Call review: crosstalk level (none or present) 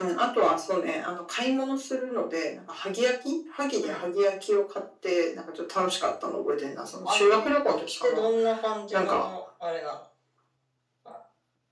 present